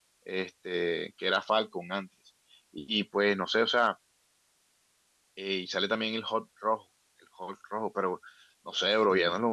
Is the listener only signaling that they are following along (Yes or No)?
Yes